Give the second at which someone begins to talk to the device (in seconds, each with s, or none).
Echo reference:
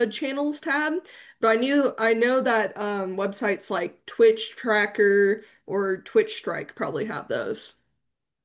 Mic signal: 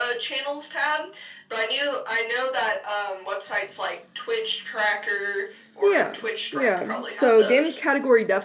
5.8 s